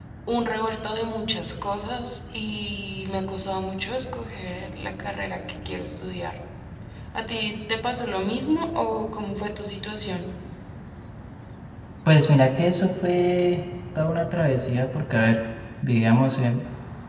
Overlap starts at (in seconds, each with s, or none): none